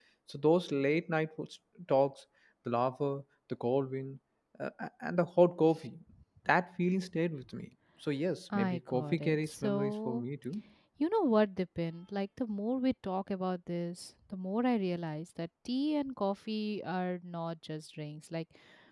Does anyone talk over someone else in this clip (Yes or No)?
Yes